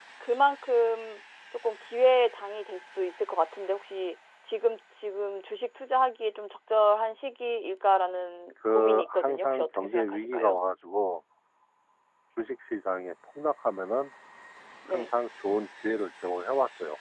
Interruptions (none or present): present